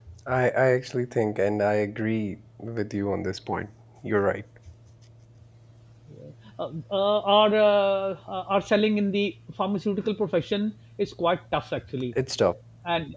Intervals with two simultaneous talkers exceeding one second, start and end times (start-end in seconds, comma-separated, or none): none